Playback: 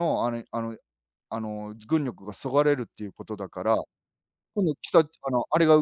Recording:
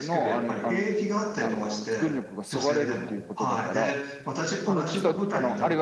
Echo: present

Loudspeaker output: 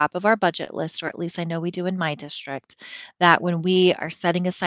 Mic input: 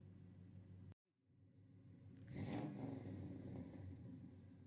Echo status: none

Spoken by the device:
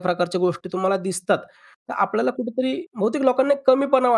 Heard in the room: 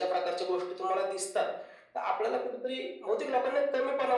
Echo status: present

